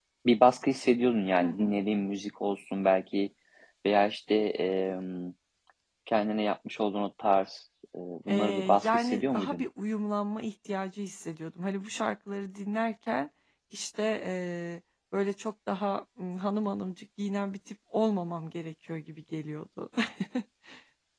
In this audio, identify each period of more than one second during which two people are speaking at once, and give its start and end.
8.3-9.6

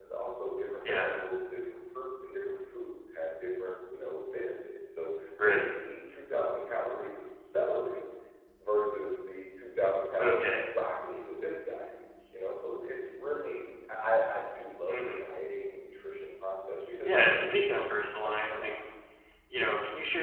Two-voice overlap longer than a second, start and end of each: 17.1-18.7

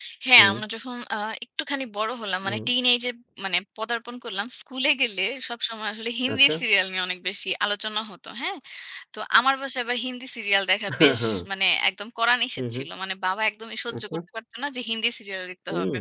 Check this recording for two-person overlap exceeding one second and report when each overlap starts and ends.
none

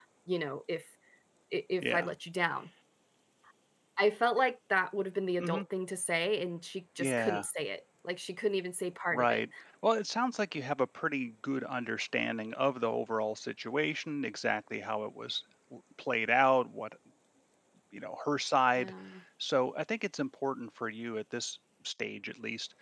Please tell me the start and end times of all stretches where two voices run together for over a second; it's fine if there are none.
none

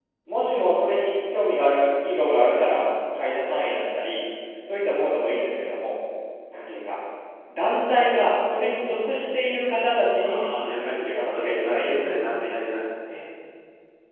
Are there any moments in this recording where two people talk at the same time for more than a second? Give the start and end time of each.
10.2-12.4

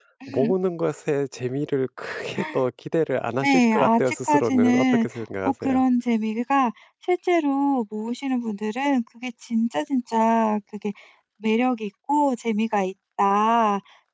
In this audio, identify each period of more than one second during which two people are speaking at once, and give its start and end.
3.4-5.1

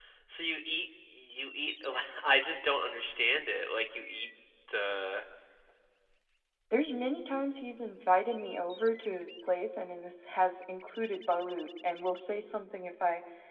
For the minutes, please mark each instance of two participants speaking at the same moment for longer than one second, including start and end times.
none

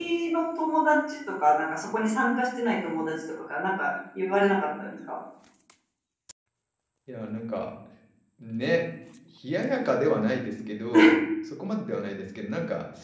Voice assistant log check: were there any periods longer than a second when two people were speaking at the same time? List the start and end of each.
none

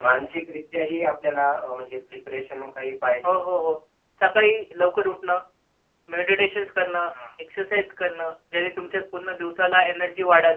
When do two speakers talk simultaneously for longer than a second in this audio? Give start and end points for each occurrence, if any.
none

